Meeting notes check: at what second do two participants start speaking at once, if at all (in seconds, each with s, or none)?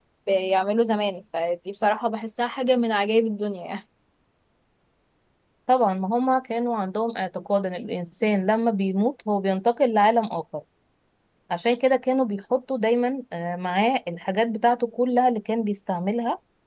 none